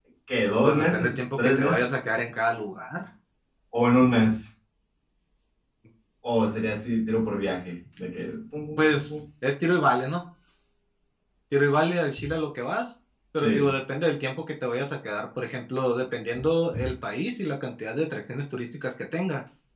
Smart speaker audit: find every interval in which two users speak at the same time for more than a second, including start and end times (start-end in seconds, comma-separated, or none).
0.6-1.9